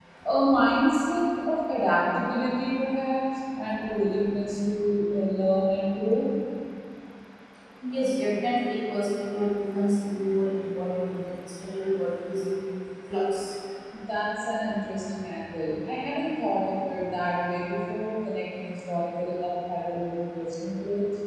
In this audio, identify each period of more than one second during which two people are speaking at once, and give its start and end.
none

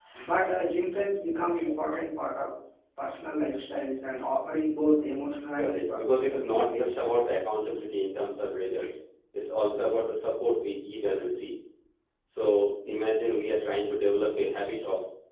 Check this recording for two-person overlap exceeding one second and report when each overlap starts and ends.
5.6-7.1

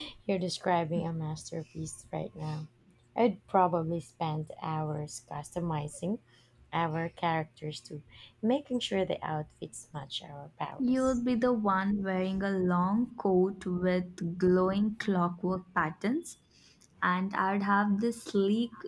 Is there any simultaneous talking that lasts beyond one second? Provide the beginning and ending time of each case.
none

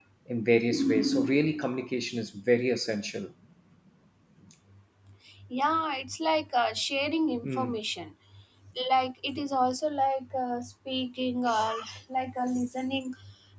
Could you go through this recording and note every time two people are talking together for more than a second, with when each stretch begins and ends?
none

